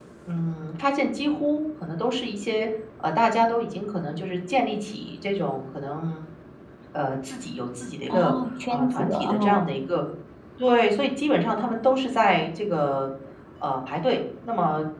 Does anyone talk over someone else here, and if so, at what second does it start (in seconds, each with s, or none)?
8.1 s